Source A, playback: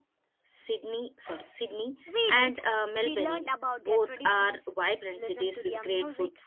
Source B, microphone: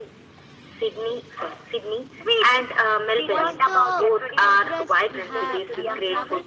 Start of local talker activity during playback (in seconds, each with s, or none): 3.2 s